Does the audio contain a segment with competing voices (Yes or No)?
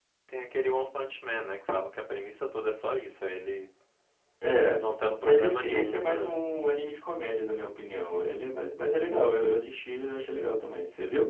Yes